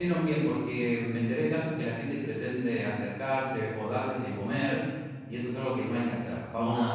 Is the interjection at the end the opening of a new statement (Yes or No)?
No